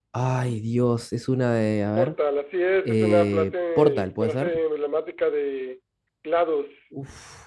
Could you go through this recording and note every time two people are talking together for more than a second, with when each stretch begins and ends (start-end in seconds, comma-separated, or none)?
2.8-4.6